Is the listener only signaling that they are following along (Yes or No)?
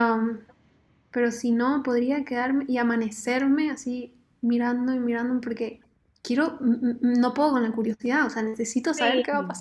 No